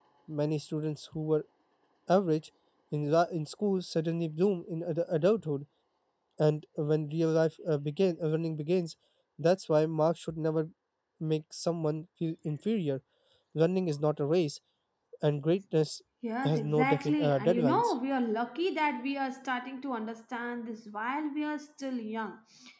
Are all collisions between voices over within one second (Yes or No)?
No